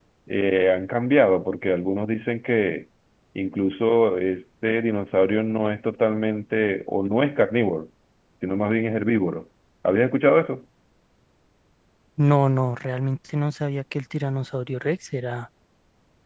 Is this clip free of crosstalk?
Yes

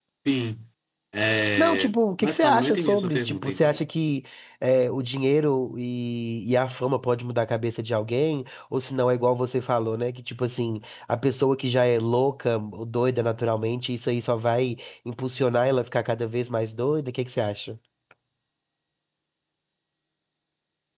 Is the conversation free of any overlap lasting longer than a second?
No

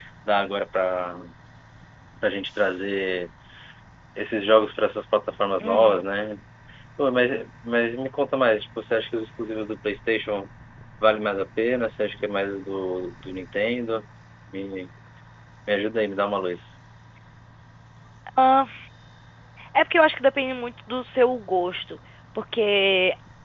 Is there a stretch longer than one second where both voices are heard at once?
No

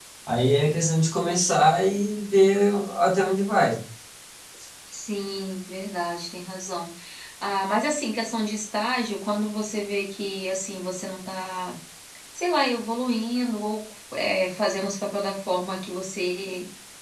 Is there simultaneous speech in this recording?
No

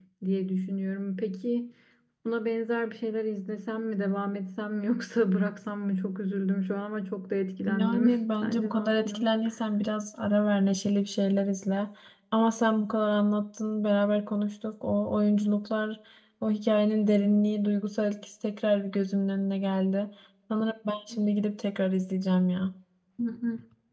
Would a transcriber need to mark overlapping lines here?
Yes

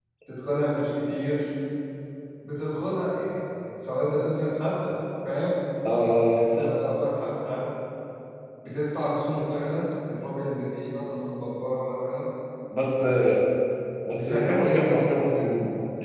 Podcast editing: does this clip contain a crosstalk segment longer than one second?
Yes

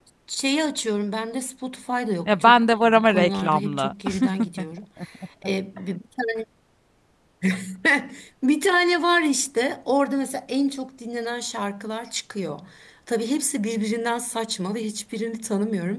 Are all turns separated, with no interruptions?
No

